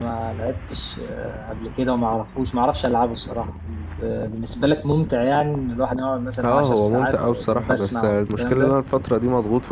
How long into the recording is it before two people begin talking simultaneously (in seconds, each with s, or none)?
6.4 s